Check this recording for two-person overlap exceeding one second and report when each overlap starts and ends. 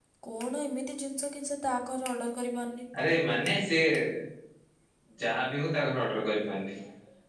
none

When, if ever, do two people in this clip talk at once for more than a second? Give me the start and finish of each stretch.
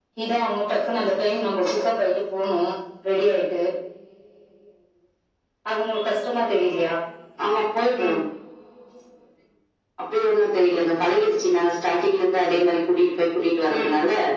none

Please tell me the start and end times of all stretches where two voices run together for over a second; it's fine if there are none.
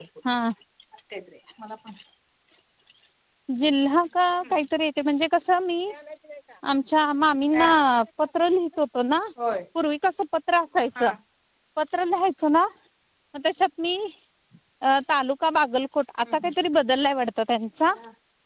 none

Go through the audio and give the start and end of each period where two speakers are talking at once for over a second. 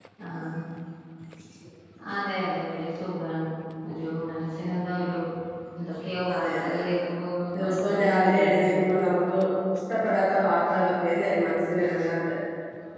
7.5-8.8

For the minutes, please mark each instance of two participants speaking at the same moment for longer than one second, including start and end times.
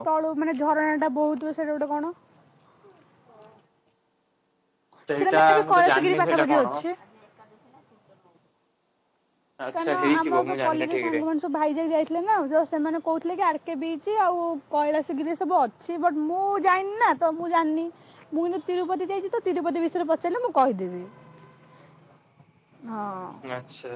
5.2-6.7, 9.8-11.2

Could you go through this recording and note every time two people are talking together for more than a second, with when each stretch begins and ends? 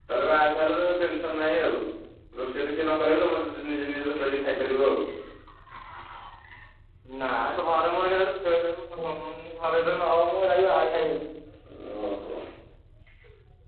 none

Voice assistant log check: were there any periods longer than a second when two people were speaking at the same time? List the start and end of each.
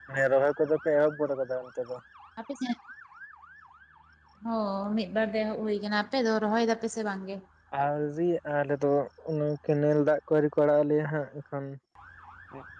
none

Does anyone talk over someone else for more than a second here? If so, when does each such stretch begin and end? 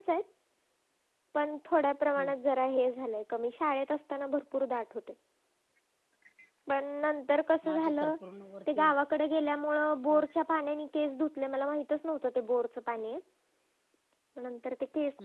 none

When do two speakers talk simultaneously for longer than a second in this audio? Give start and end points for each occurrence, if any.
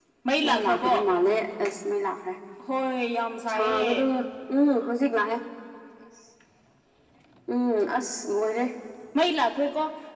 none

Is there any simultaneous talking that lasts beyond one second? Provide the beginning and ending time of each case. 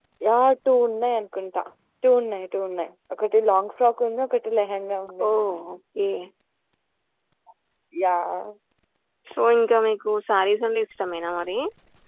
none

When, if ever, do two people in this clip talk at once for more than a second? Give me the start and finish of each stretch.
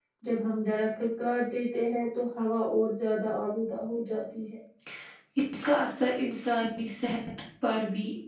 none

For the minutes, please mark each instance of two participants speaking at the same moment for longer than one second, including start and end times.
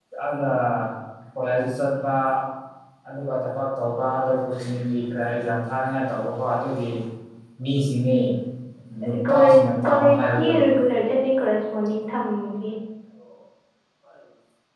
9.3-10.6

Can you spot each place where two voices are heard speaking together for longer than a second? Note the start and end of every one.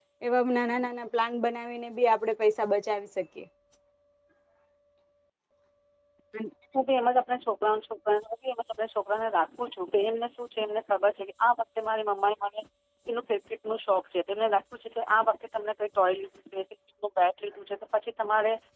none

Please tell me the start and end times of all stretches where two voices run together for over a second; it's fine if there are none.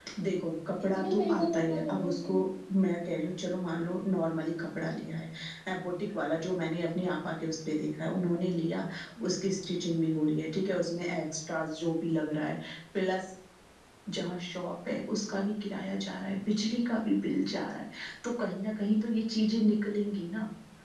0.9-2.3

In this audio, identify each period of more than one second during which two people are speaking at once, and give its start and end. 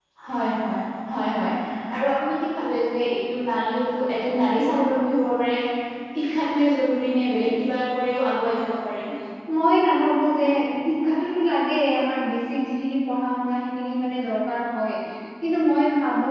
none

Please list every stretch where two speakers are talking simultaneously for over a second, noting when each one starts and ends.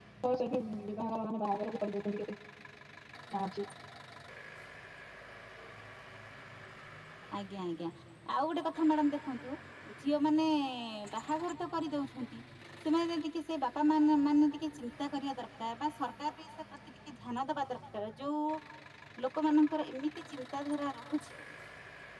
none

